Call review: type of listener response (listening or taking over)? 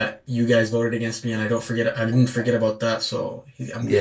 taking over